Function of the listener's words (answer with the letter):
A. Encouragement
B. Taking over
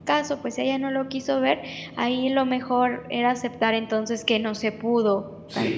B